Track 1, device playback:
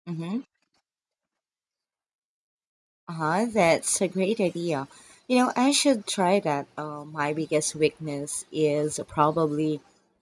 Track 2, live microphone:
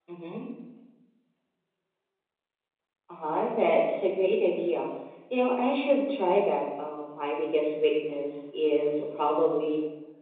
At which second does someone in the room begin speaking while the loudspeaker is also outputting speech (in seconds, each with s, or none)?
none